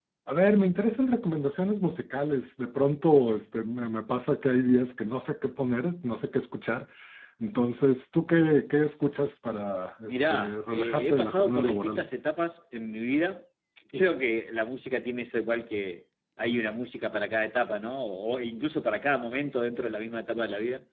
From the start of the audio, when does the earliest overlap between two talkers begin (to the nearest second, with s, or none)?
10 s